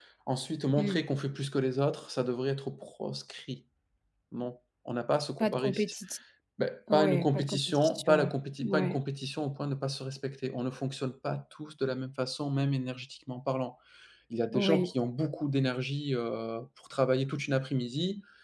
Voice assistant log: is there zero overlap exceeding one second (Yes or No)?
No